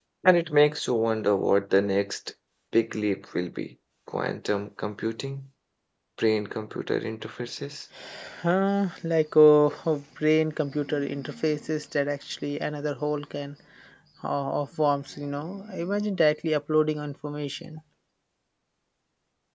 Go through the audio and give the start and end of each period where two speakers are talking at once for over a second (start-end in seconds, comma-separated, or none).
none